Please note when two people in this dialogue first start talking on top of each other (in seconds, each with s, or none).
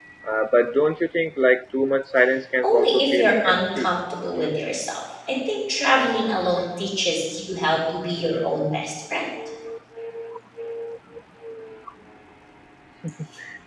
2.6 s